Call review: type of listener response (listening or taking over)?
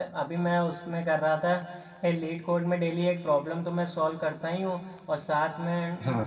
listening